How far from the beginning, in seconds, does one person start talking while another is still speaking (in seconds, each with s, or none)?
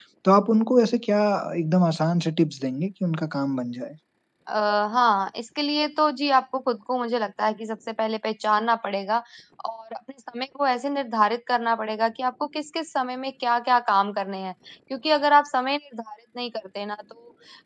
none